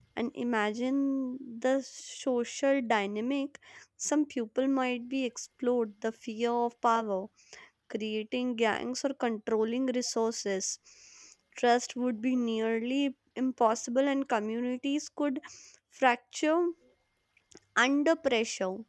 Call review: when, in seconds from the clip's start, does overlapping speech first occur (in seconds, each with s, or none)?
none